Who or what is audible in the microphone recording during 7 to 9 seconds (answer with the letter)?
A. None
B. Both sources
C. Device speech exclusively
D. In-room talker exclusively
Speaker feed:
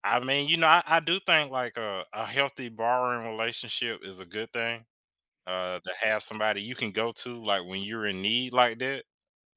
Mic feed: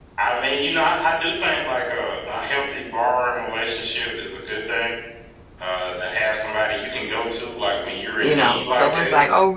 B